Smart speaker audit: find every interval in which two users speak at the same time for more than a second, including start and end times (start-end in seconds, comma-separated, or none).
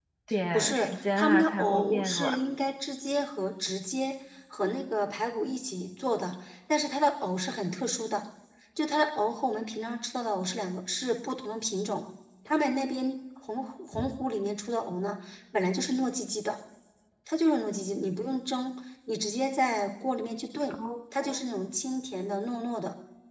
0.5-2.4